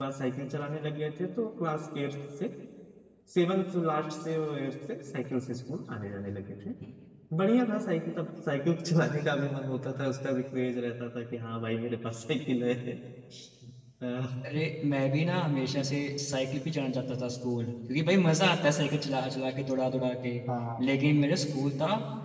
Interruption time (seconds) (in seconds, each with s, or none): none